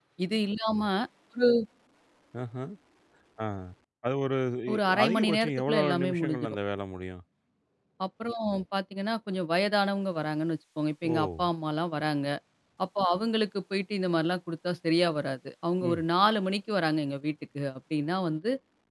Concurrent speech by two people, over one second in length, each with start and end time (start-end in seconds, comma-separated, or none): 4.7-6.6